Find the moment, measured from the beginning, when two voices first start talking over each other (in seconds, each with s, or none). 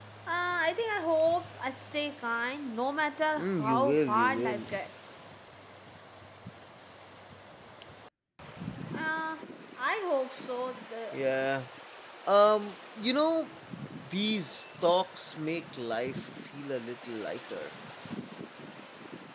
3.4 s